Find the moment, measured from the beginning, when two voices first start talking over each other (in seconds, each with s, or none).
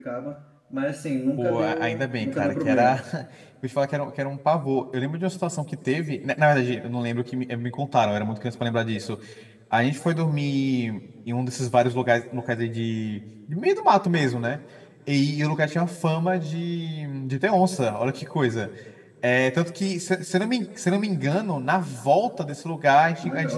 1.4 s